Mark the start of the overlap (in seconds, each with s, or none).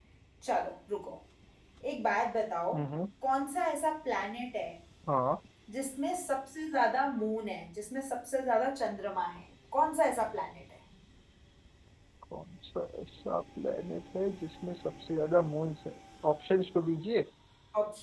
none